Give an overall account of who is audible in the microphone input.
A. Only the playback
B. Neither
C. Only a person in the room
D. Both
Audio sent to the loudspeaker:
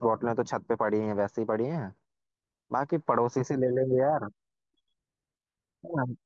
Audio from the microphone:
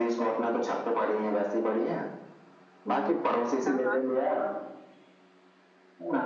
D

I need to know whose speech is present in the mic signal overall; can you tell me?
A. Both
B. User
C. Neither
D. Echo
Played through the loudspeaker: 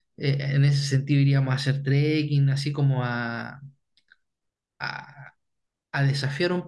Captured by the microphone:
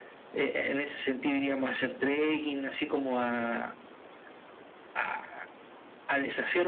D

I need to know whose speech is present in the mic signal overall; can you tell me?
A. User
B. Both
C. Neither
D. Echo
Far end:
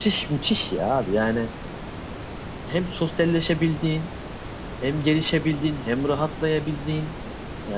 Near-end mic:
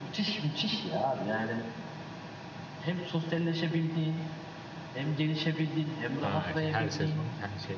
B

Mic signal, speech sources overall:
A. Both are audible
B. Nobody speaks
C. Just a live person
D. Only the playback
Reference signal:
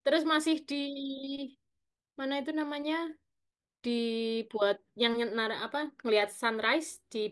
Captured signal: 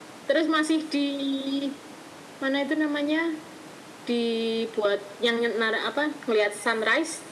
D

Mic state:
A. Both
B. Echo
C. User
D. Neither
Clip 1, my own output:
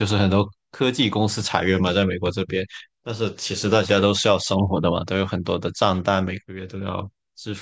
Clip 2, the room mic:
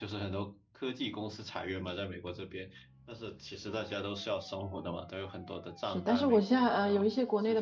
A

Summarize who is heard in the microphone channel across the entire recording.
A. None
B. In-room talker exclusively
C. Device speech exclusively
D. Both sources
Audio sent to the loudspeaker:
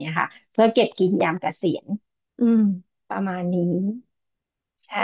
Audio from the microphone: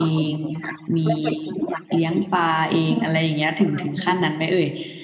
D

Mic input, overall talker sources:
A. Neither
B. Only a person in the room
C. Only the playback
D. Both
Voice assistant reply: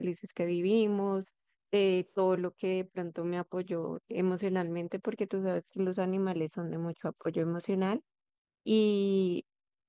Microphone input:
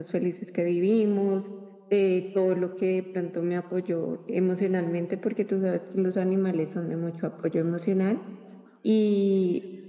C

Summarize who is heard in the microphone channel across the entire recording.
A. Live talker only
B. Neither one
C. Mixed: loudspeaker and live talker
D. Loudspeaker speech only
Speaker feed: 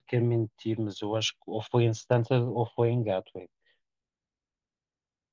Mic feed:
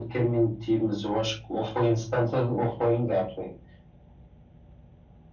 D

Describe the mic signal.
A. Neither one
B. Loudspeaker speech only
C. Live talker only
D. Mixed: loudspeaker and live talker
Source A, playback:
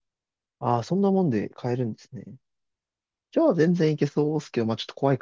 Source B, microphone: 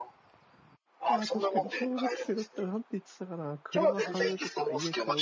D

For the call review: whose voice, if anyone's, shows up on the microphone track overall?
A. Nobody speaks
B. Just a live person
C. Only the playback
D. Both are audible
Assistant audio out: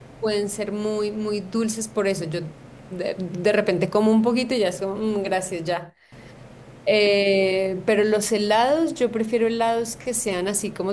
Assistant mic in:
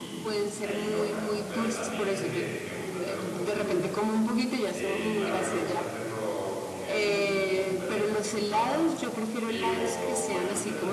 D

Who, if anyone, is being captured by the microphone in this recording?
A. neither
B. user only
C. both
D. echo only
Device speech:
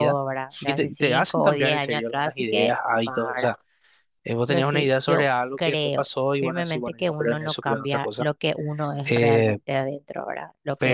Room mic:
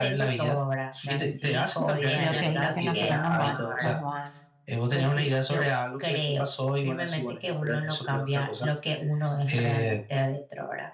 C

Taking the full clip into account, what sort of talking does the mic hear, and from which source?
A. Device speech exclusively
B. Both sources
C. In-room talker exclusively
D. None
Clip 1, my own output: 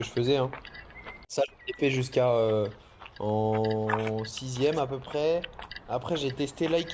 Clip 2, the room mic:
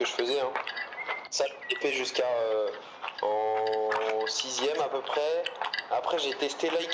A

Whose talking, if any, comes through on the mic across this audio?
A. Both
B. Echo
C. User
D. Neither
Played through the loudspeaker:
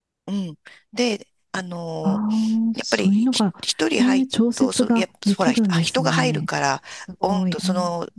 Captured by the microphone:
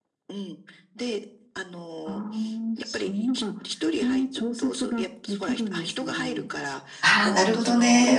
A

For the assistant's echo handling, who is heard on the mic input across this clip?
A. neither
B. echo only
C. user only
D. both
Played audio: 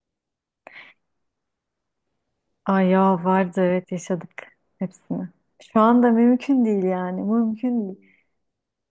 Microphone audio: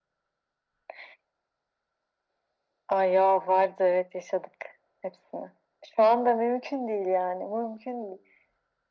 B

